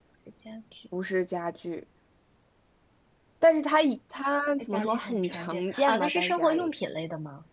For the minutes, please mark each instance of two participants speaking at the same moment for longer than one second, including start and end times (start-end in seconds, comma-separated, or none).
4.6-6.7